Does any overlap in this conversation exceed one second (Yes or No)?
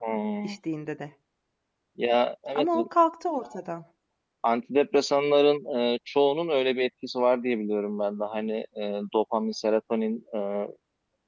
No